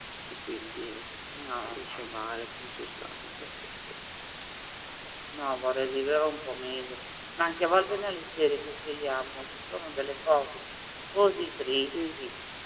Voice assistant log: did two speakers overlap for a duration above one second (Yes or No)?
No